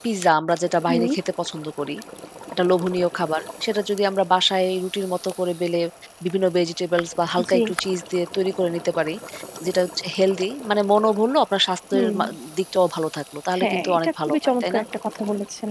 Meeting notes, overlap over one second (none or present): present